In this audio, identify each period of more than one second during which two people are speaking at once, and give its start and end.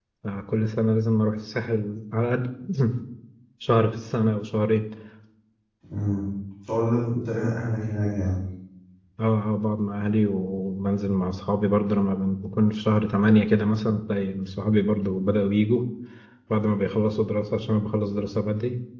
none

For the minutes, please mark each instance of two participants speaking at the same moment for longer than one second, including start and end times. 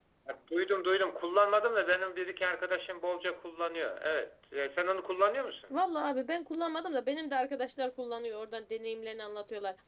none

